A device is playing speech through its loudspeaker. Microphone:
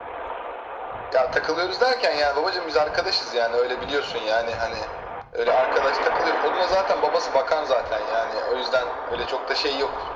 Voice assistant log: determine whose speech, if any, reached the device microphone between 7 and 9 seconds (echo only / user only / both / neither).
echo only